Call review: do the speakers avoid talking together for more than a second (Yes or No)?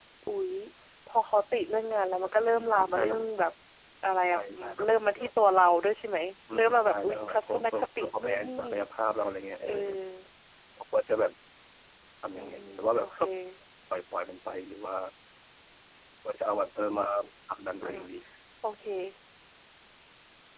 No